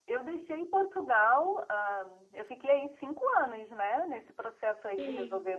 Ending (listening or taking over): listening